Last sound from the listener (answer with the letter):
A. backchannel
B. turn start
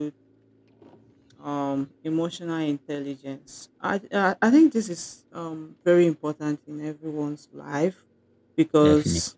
A